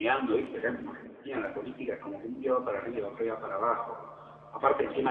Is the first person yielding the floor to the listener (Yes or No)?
No